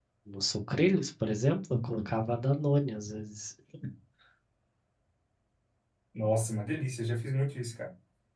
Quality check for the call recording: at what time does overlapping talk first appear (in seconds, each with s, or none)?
none